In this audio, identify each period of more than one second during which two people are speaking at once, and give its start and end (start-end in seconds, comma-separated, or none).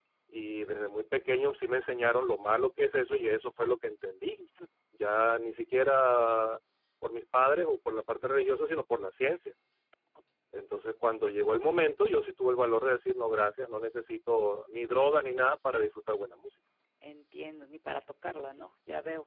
none